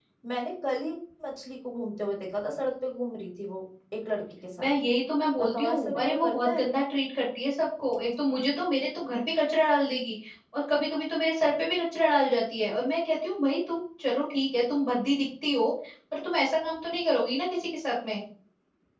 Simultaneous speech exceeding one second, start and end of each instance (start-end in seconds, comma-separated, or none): 5.4-6.7